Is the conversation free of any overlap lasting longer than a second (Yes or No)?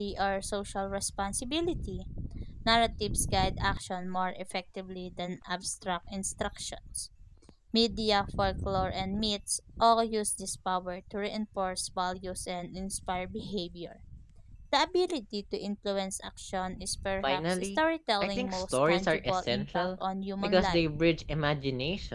No